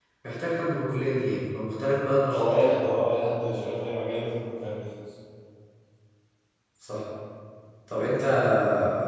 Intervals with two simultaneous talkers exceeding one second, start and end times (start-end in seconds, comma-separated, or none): none